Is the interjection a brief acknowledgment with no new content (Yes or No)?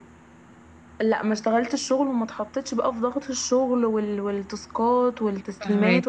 Yes